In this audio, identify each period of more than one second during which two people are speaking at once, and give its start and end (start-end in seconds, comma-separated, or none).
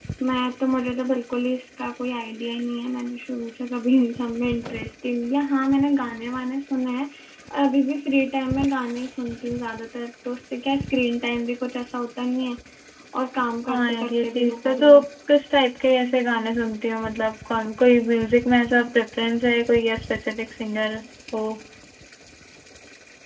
13.7-15.0